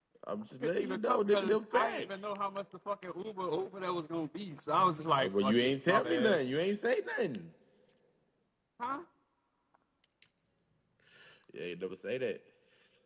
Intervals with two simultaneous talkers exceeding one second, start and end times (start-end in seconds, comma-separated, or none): 0.6-2.2, 5.2-6.4